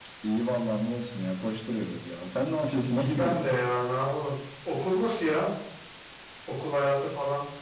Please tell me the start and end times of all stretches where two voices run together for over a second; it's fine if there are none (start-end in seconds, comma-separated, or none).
none